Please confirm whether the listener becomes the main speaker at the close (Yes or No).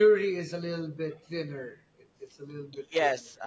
Yes